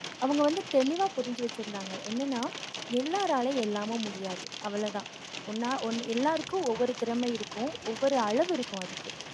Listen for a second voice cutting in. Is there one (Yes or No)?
No